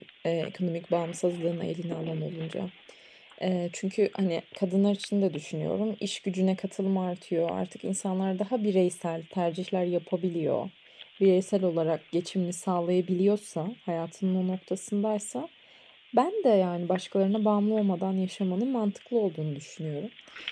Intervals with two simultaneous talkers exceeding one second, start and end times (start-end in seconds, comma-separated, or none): none